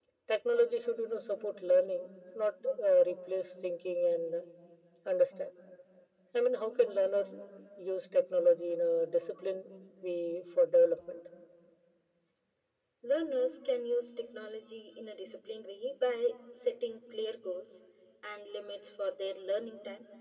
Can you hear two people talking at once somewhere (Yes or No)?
No